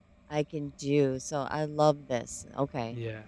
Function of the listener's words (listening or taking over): taking over